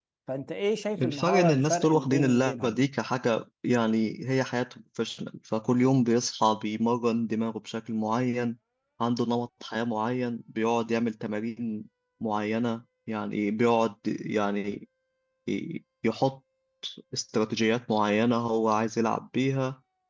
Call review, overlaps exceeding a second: present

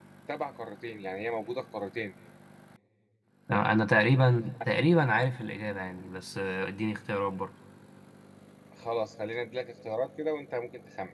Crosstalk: none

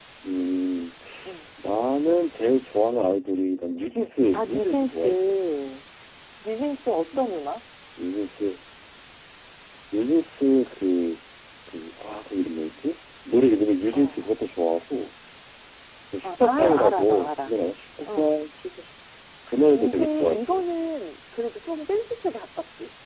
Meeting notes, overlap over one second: present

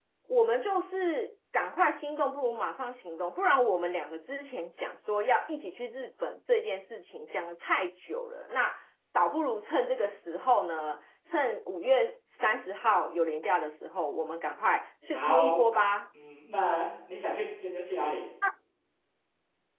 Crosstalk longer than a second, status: none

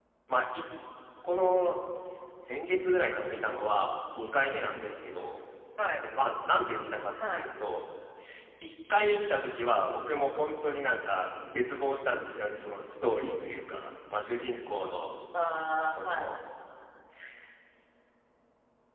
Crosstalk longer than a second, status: none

